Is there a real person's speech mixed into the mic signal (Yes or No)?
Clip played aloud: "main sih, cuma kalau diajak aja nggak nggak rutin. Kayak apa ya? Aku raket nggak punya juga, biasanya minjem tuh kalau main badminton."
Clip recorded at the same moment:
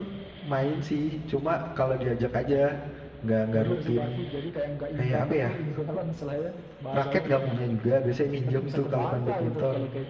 Yes